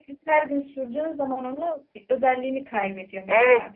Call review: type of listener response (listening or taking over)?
taking over